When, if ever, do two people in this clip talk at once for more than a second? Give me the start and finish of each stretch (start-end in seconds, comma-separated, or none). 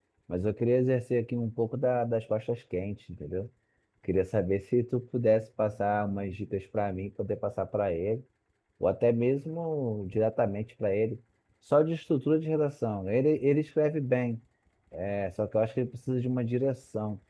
none